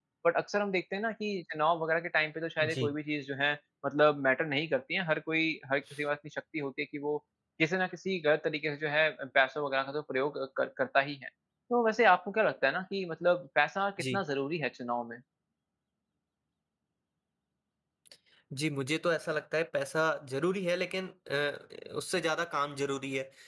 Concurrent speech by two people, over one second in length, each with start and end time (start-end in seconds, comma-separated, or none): none